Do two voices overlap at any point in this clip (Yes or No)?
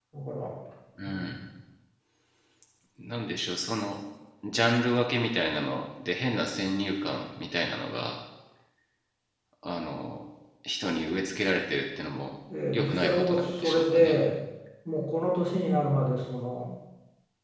Yes